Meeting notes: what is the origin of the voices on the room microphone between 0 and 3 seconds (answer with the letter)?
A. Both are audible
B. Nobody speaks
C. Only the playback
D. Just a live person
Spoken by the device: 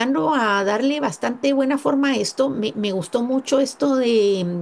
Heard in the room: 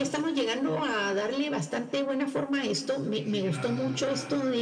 C